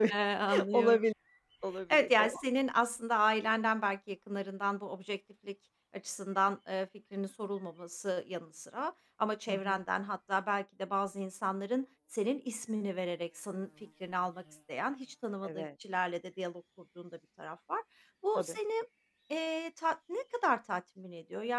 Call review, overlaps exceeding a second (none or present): none